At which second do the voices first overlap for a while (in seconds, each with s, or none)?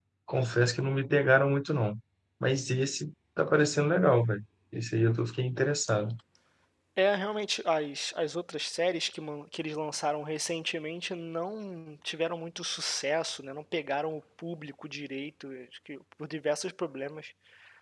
none